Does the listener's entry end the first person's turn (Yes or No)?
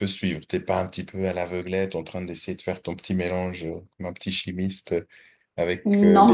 No